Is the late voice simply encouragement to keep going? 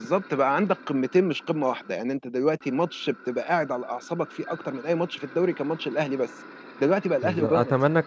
No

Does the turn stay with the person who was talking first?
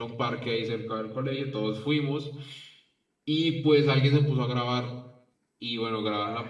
Yes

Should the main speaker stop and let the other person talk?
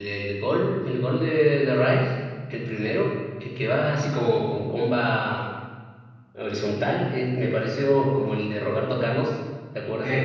Yes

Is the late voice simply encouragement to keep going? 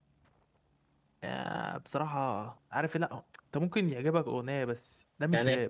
No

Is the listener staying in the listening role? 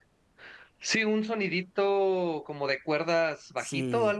No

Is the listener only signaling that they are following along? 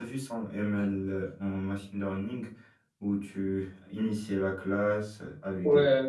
No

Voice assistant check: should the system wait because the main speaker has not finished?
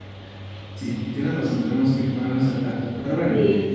Yes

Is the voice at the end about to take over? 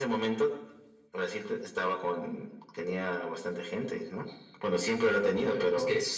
Yes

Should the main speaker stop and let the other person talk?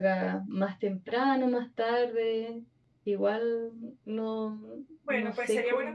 Yes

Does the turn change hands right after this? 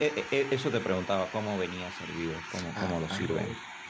Yes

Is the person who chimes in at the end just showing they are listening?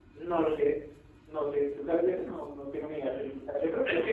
No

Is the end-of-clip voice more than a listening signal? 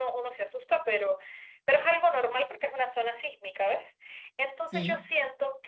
No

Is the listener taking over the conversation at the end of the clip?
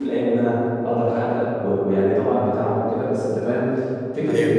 No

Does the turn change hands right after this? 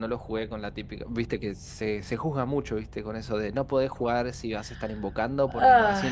No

